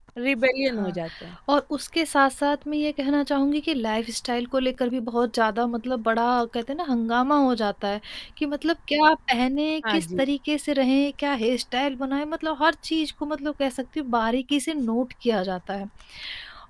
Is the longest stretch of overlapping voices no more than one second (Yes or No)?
Yes